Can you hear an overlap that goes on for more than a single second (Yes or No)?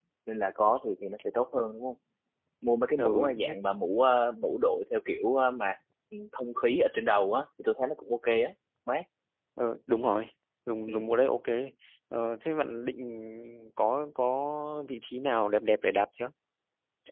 No